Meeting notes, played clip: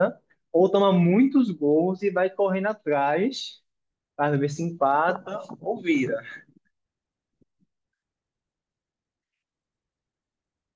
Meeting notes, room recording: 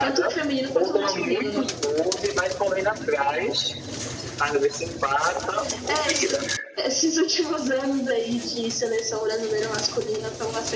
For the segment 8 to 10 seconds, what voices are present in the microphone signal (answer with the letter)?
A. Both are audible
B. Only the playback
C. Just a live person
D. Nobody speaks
C